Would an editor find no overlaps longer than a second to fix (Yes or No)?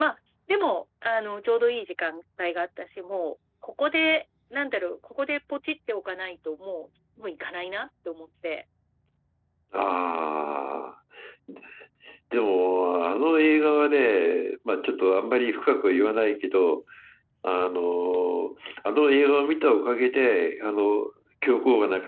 Yes